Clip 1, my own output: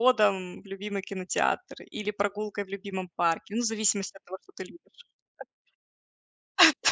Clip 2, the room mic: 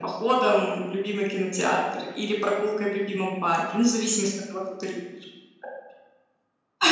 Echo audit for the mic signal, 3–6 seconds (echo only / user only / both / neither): echo only